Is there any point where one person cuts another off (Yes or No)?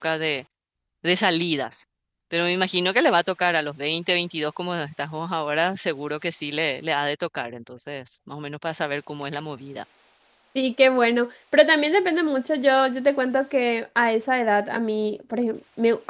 No